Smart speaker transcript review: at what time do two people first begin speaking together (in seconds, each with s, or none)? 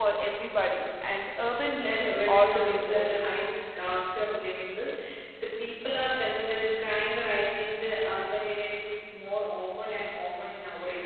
1.8 s